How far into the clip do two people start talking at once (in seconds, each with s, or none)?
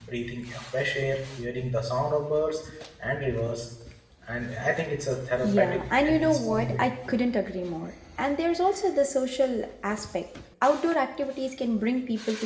5.4 s